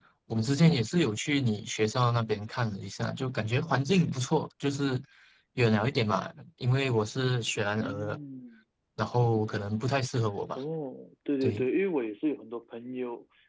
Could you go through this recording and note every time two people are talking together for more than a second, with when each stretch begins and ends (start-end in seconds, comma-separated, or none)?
none